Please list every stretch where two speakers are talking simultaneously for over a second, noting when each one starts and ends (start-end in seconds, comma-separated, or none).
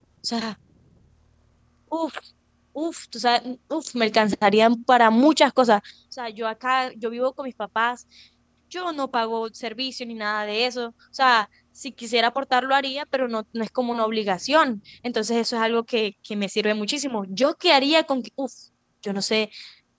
none